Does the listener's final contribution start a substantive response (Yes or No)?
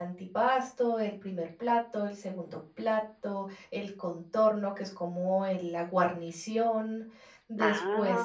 No